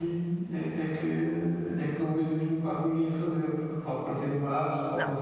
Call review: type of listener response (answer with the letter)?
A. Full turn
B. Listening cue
A